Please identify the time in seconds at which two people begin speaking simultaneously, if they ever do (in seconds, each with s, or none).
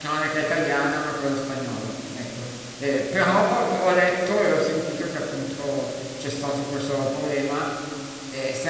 none